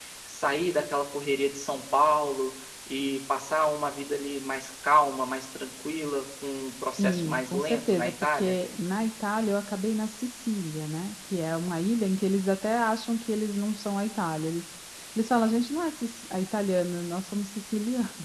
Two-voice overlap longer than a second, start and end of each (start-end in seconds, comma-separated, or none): 7.0-8.6